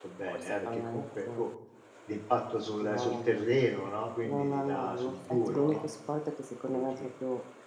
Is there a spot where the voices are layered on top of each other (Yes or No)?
Yes